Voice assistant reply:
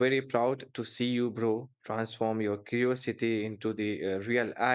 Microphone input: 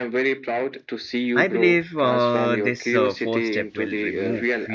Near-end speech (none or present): present